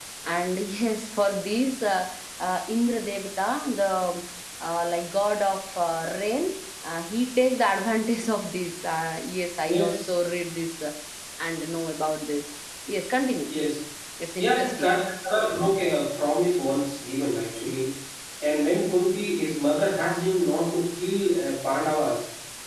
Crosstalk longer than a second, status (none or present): none